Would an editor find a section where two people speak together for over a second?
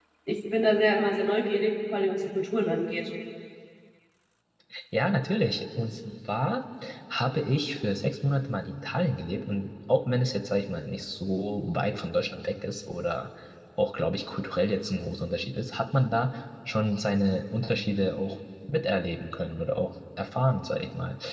No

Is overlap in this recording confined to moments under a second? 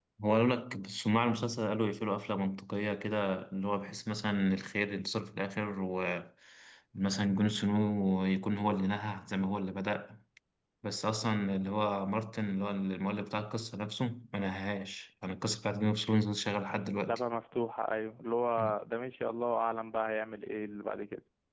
Yes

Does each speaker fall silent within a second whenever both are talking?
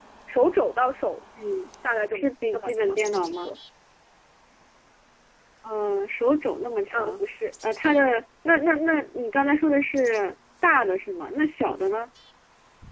No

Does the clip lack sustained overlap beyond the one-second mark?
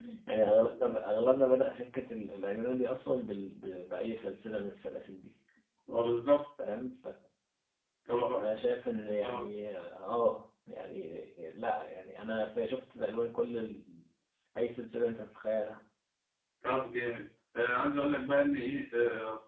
Yes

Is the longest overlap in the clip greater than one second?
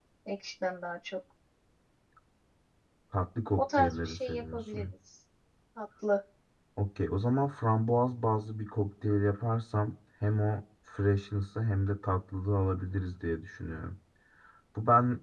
Yes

